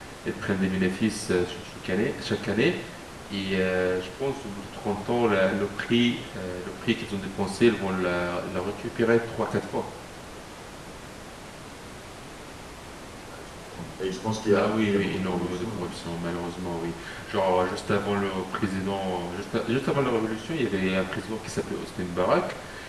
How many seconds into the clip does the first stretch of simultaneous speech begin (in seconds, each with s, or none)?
14.4 s